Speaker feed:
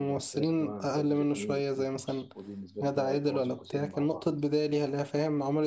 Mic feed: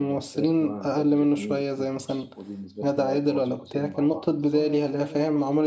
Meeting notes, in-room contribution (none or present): present